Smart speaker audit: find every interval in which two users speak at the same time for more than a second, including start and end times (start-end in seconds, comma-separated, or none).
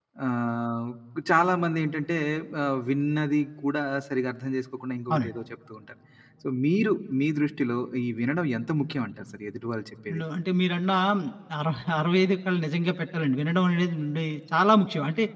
none